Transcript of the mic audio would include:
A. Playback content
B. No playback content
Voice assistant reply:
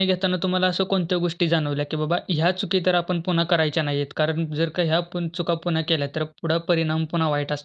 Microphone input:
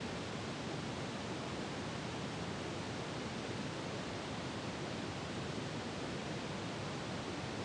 B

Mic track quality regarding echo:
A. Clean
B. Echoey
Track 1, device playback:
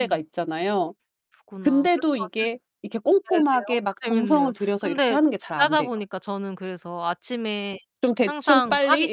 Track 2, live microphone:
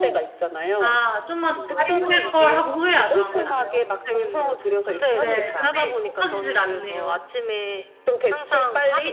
B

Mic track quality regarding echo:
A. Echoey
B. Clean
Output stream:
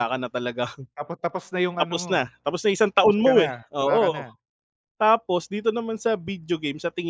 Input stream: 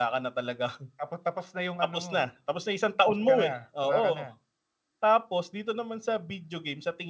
A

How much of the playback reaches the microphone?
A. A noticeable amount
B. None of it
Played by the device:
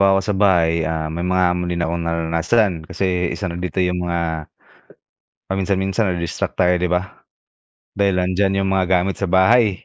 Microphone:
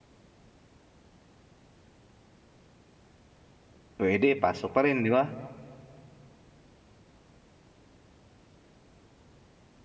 B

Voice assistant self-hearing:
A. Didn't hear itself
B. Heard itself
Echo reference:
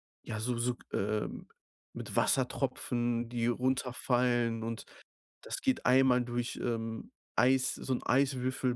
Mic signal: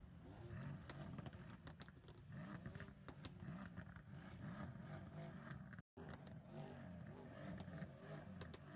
A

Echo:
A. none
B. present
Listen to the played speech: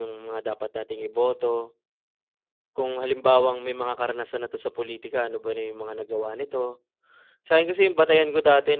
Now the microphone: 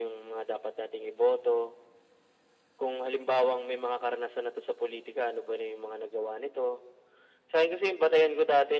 B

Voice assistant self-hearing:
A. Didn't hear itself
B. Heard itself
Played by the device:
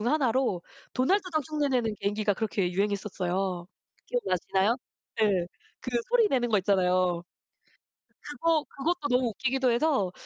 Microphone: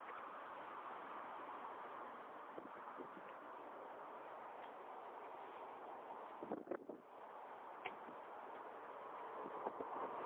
A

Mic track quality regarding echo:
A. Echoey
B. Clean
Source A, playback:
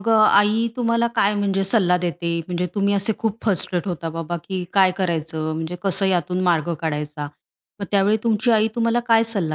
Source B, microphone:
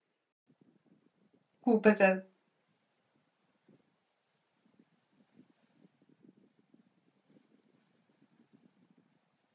B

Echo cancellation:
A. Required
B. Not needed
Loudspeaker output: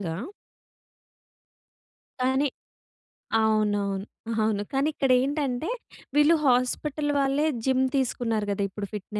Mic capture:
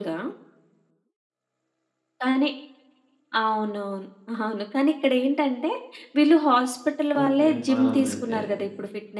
A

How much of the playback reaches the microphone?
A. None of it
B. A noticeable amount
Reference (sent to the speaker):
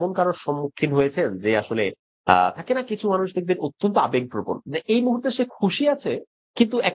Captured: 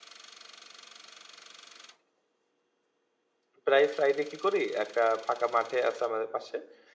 A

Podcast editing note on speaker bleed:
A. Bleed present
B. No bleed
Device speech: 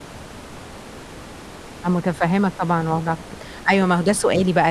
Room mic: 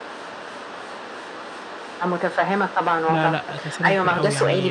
A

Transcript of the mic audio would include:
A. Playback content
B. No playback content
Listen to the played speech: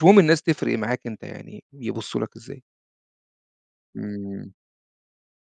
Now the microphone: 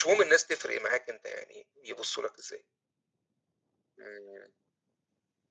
A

